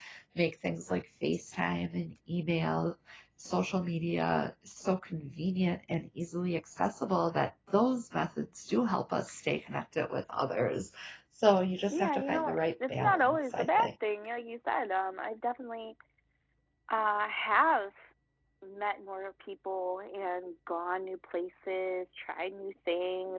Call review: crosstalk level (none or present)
present